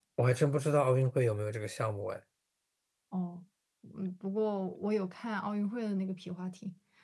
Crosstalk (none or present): none